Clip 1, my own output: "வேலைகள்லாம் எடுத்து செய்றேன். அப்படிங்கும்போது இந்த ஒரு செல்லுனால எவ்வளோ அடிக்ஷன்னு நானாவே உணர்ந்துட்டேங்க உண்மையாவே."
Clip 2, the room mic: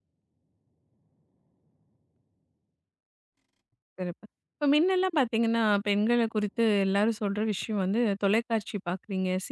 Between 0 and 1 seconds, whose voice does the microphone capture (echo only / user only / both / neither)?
neither